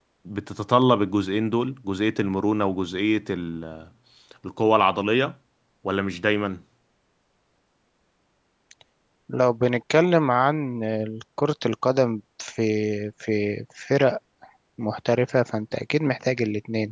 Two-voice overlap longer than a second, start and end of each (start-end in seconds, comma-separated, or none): none